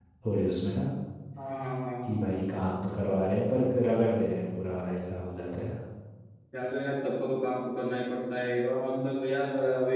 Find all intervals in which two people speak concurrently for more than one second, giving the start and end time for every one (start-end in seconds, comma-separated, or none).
none